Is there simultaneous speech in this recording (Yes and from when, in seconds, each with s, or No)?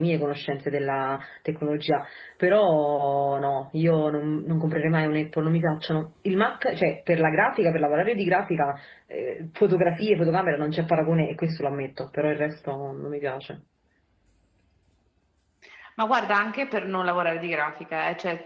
No